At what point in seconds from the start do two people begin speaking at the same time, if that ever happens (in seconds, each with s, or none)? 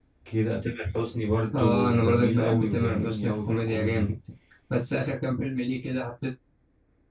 1.5 s